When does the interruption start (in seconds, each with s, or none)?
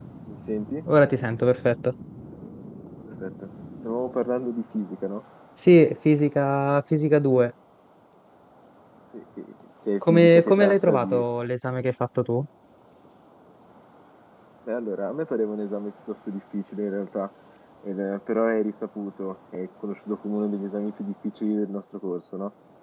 10.0 s